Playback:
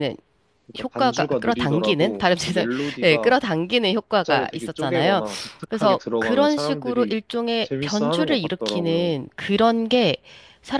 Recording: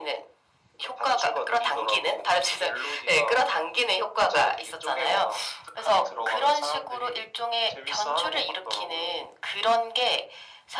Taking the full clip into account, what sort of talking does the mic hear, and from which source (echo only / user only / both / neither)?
echo only